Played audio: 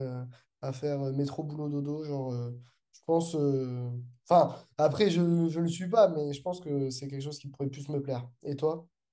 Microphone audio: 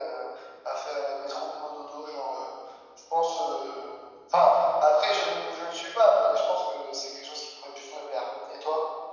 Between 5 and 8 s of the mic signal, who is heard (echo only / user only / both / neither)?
echo only